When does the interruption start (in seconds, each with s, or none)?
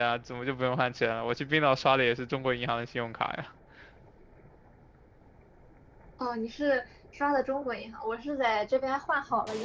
none